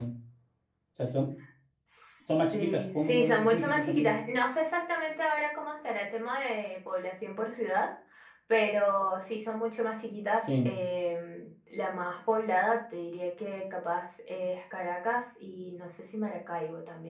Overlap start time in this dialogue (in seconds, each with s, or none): 2.5 s